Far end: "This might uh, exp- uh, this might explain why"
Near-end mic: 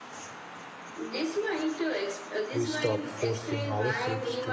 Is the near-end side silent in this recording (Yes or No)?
No